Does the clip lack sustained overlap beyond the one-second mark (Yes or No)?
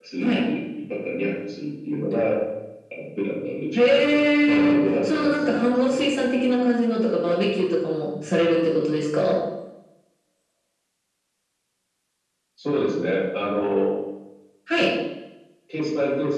No